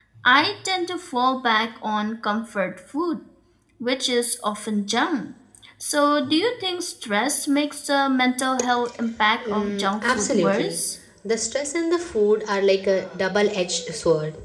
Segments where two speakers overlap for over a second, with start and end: 9.4-10.8

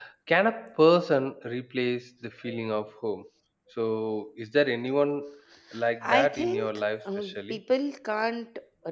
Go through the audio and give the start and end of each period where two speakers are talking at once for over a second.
6.0-7.6

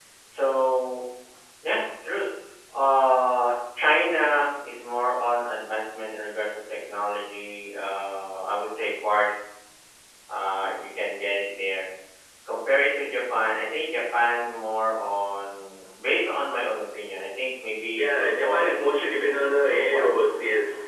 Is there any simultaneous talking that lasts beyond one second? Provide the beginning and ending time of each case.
18.0-19.2

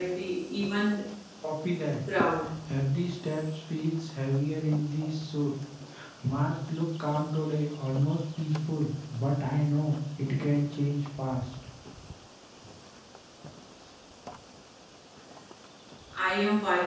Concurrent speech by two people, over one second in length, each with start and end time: none

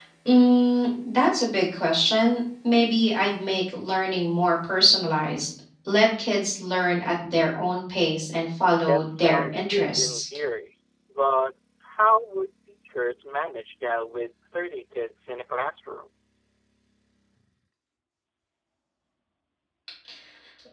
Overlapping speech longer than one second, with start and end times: 8.8-10.2

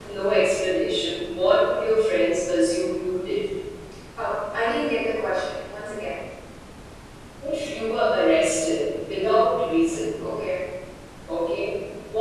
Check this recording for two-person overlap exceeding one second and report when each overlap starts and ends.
none

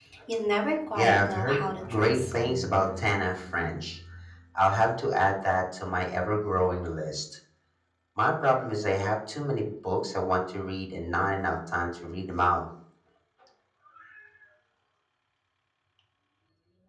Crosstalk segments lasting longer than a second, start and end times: 1.0-2.3

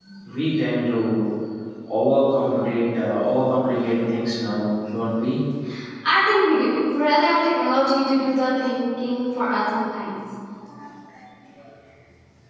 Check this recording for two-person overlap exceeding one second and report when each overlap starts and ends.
none

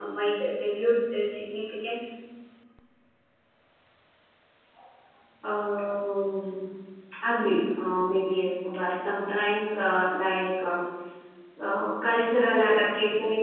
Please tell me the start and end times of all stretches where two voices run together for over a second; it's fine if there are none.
none

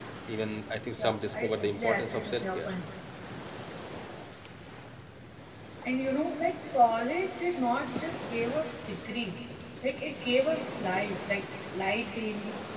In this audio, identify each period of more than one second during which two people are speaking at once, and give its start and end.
1.0-2.7

